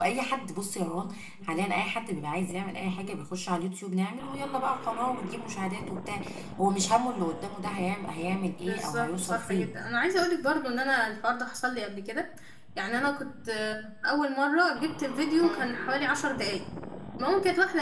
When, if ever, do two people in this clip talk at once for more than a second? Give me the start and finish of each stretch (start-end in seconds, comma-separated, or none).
8.6-9.9